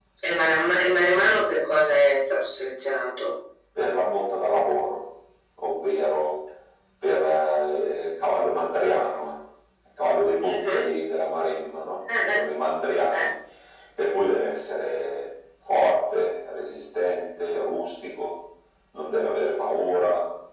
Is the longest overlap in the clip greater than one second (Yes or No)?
No